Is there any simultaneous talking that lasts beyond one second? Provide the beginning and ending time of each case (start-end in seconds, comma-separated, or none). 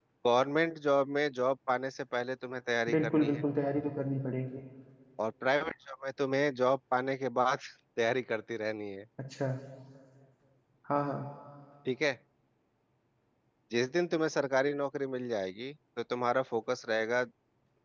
none